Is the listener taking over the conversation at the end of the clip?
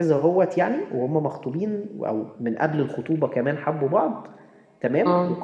No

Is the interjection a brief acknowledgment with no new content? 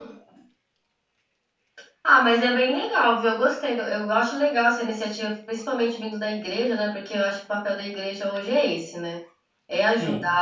Yes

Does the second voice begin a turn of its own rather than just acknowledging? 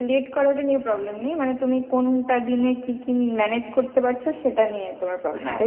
Yes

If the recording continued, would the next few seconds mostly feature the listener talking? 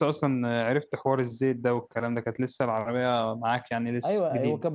Yes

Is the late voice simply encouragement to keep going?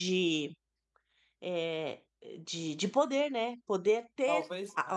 Yes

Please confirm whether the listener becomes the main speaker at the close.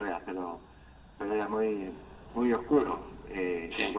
No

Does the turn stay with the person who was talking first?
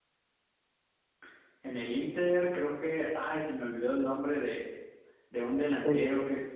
Yes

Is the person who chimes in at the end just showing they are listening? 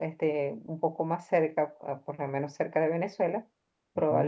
Yes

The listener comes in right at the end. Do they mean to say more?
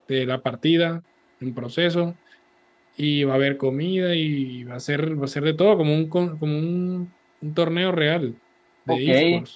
Yes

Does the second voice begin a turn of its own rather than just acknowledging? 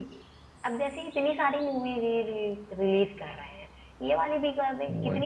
No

